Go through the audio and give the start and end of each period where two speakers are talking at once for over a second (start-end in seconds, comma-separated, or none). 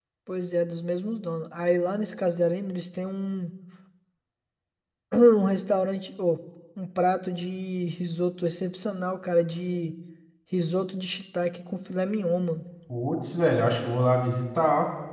none